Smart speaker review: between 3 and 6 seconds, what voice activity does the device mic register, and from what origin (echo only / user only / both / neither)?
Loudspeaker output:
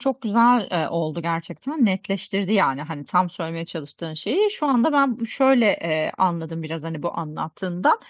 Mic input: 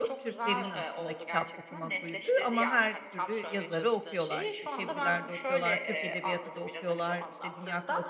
both